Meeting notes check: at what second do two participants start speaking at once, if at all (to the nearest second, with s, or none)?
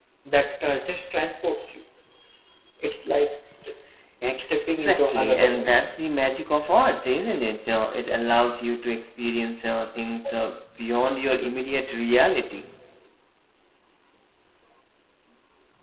4 s